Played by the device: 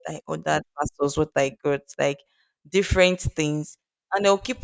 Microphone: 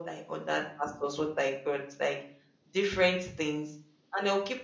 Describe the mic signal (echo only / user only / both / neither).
echo only